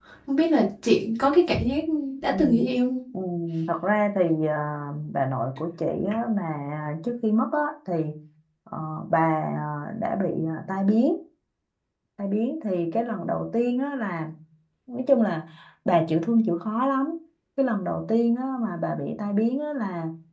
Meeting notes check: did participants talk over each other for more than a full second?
No

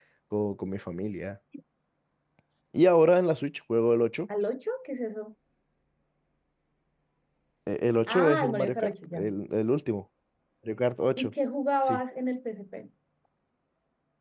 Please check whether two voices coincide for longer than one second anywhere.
Yes, from 8.1 s

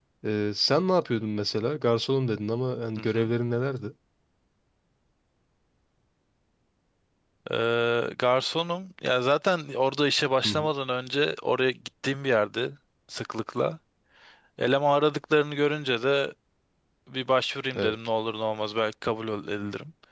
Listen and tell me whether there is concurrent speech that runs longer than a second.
No

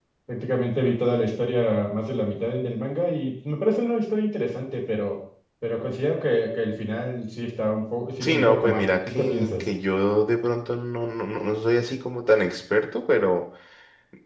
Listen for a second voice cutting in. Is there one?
Yes, from 8.2 s

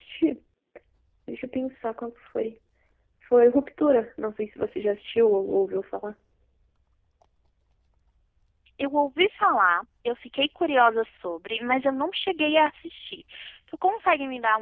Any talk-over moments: No

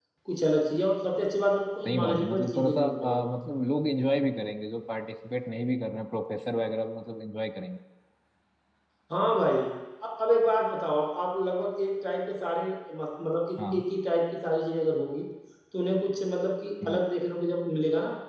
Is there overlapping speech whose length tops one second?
Yes, from 1.9 s

